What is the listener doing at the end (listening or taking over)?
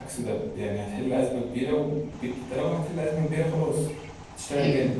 taking over